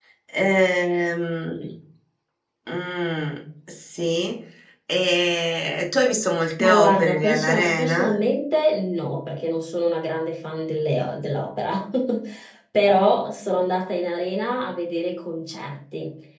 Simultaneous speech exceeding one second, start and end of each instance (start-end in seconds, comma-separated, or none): 6.6-8.1